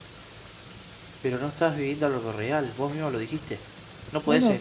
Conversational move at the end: taking over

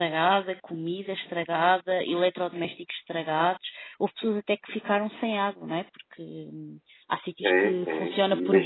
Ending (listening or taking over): taking over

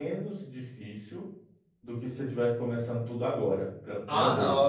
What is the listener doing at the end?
taking over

